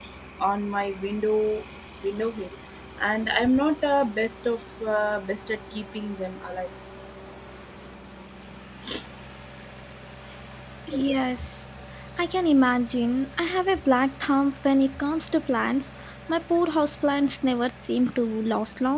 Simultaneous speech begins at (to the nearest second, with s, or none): none